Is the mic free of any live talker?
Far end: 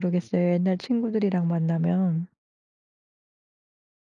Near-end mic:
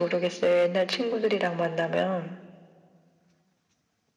Yes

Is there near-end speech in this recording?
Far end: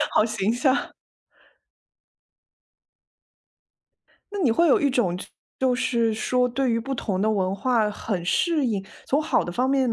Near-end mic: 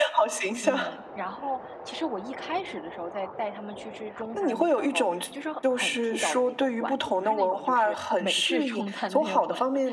Yes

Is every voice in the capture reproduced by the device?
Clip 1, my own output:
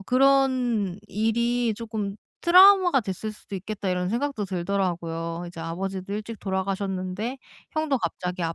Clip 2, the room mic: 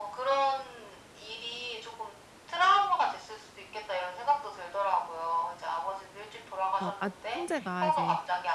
No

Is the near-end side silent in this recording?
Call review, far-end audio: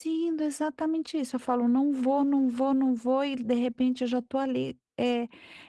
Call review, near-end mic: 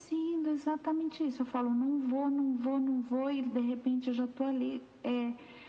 Yes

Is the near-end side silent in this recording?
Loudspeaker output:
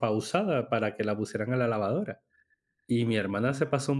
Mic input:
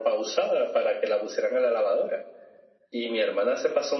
Yes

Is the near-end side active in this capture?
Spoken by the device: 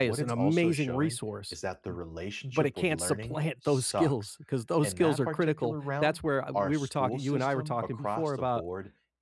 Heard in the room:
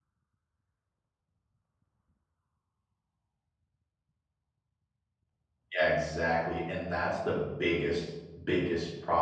Yes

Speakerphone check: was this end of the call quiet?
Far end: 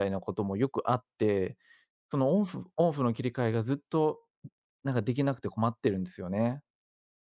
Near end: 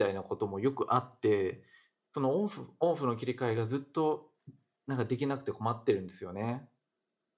Yes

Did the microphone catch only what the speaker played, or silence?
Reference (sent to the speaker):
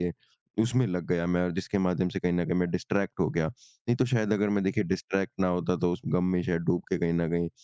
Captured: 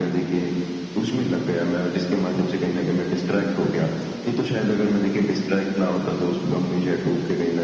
Yes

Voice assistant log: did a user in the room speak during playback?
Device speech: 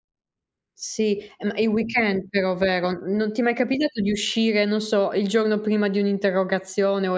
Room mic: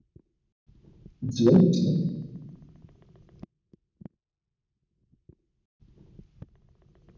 Yes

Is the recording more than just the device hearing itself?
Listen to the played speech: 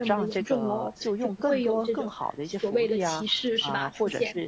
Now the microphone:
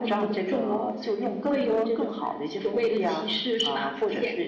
No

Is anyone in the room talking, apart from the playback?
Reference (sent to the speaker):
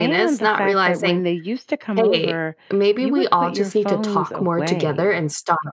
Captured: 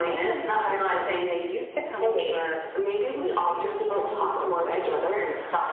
No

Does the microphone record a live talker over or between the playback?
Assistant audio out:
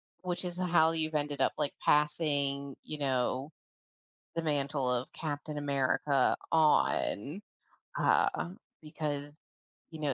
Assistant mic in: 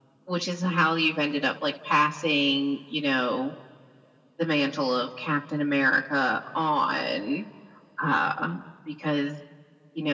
No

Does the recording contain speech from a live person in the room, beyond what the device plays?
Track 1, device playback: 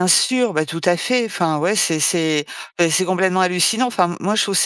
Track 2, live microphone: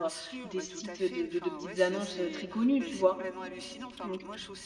Yes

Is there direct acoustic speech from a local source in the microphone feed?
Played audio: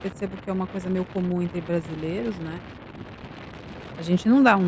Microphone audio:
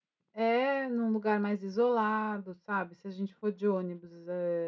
Yes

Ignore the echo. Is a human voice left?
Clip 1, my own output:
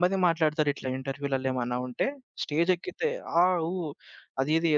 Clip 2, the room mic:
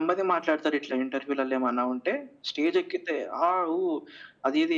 No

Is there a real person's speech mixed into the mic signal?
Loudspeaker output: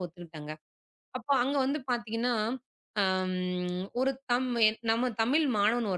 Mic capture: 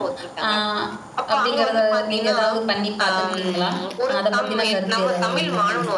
Yes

